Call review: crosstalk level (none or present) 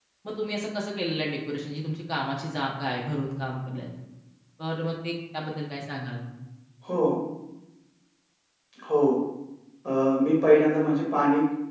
none